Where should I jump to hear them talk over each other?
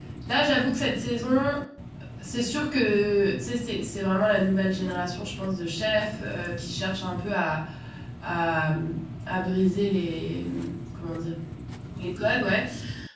none

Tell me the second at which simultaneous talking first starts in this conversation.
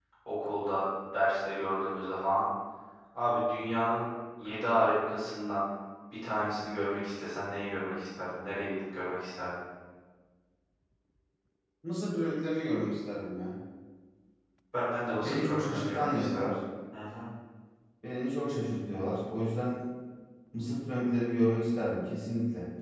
15.2 s

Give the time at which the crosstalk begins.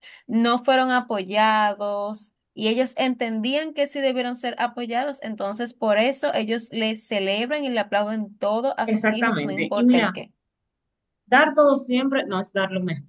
8.9 s

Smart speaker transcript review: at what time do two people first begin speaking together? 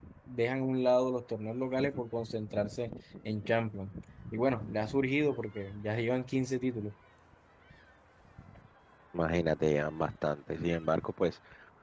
none

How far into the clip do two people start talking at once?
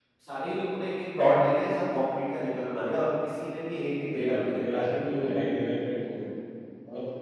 4.1 s

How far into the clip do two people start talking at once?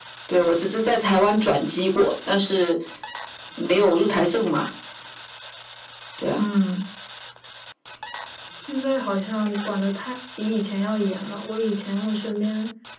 none

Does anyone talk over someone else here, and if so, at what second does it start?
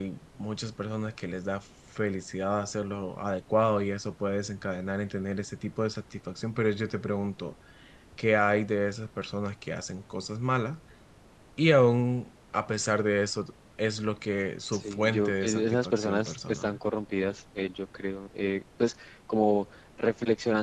14.7 s

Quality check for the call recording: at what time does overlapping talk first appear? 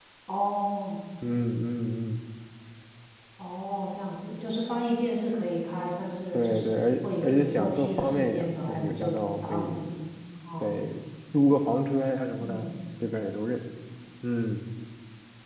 6.3 s

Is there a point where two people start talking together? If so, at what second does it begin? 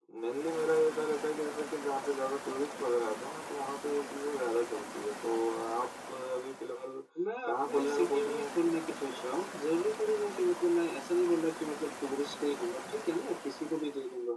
7.4 s

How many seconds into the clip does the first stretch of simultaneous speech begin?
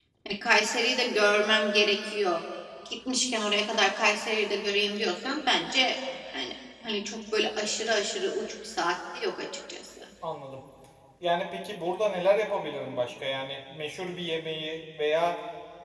none

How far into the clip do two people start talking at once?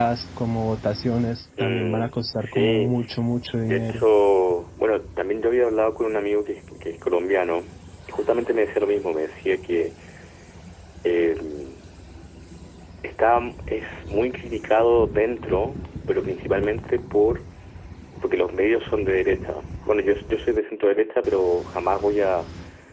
1.6 s

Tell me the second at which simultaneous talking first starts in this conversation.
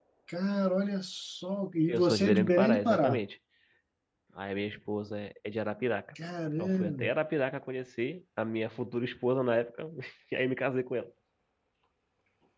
1.9 s

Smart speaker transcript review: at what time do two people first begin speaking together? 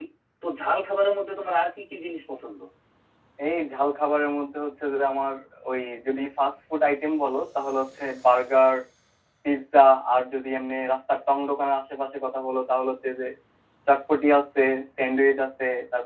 none

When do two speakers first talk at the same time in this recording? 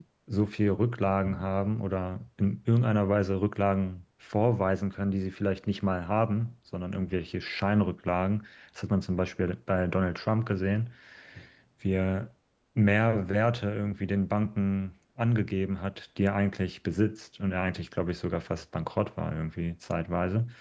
none

